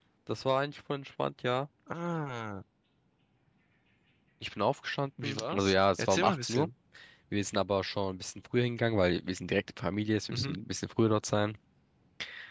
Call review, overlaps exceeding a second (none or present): present